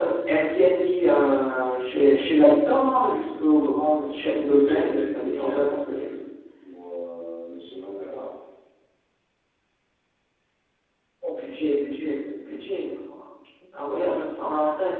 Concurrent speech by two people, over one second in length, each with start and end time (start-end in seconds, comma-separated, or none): 4.0-6.0